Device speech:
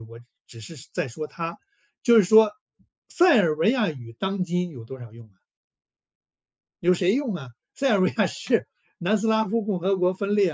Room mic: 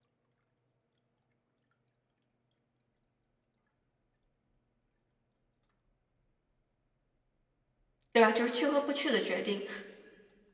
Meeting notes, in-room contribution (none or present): present